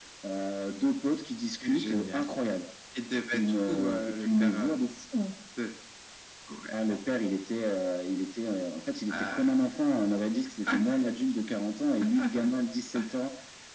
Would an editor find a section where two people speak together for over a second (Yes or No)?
Yes